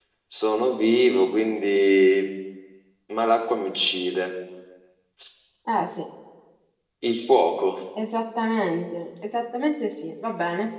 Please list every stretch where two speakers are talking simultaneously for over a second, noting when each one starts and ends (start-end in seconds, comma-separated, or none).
none